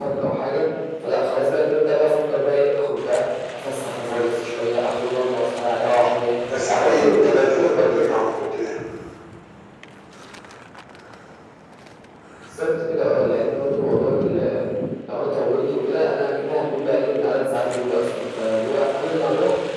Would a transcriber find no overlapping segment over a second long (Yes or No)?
No